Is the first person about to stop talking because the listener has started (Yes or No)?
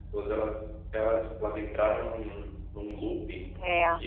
No